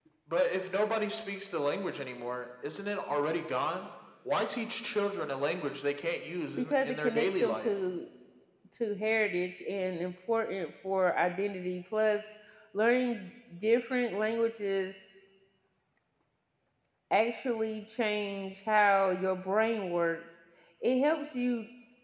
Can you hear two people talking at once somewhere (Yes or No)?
Yes